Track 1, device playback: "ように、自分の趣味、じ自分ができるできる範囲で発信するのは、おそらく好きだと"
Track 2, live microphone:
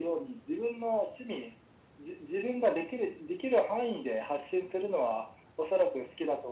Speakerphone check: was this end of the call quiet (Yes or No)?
Yes